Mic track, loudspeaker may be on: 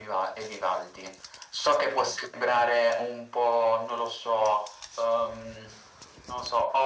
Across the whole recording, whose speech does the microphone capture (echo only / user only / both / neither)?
echo only